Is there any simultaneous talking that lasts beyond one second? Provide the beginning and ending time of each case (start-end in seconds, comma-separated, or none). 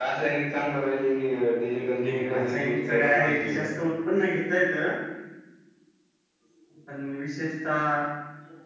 2.0-3.6